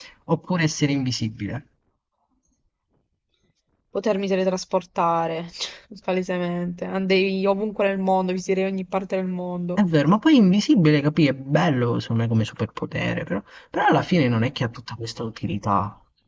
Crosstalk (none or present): none